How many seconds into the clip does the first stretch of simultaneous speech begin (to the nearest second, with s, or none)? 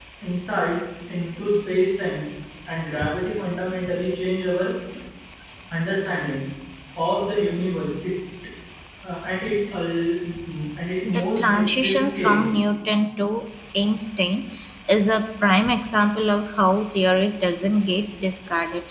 11 s